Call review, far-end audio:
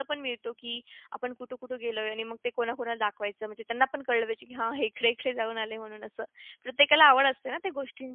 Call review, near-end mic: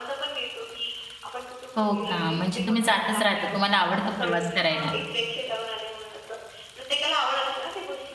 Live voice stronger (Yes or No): Yes